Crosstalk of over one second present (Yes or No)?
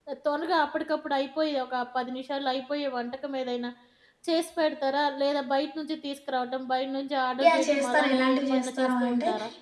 Yes